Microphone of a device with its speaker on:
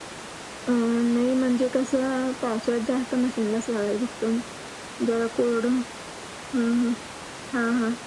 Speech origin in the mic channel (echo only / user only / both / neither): echo only